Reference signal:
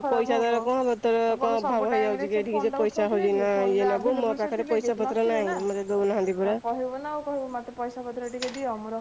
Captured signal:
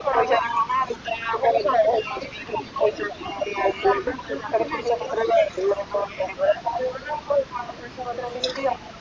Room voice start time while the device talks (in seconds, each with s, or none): none